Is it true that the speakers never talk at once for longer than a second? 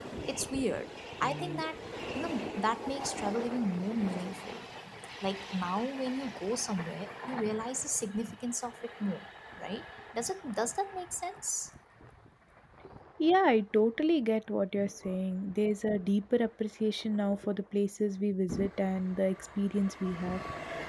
Yes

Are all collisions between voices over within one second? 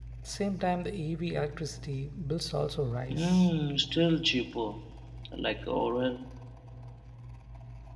Yes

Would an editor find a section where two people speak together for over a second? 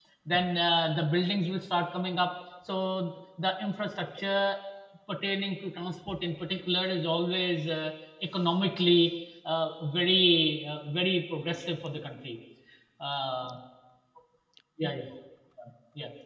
No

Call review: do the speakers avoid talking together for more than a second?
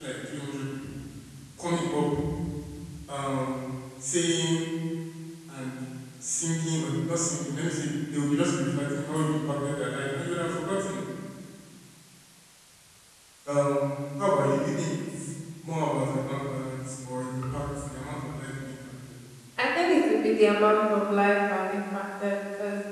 Yes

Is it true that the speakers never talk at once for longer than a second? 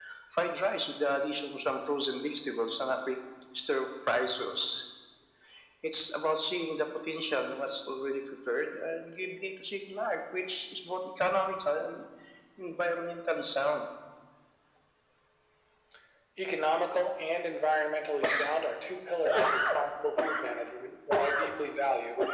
Yes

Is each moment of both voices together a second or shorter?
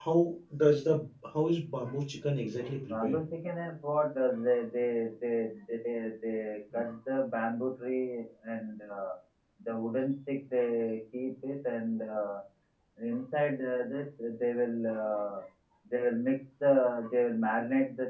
Yes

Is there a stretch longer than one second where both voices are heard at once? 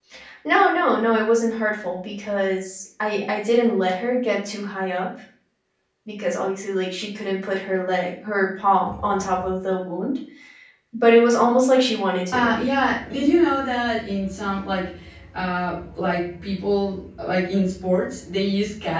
No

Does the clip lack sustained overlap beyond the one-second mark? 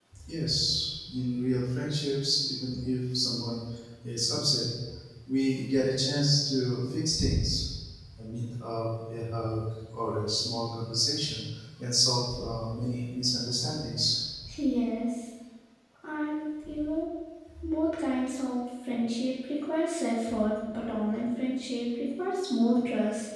Yes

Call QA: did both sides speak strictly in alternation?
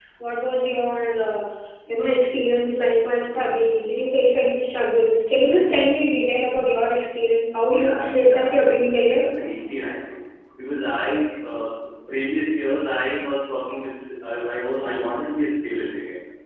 No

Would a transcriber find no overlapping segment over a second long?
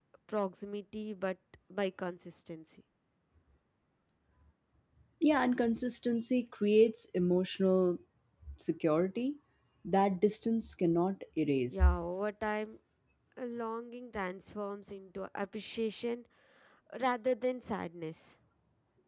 Yes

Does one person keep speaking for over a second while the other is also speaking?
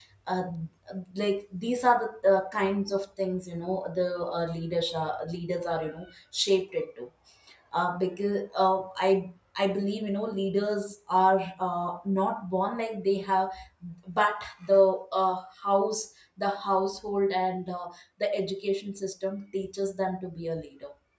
No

